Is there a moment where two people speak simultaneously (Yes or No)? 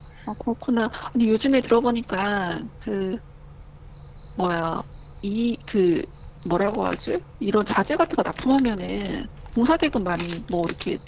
No